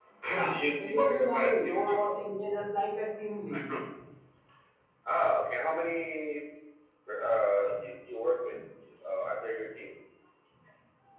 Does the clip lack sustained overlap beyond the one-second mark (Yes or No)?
No